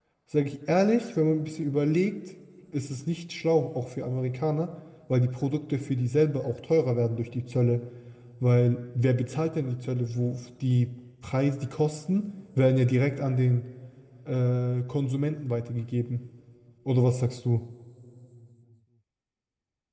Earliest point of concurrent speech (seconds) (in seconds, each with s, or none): none